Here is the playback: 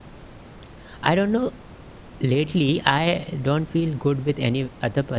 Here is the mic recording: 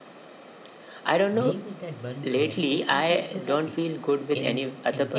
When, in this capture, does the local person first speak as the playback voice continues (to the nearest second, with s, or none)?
1 s